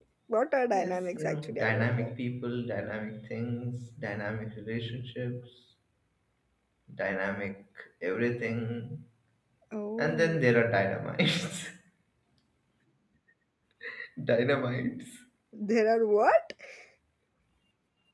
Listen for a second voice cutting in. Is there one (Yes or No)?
Yes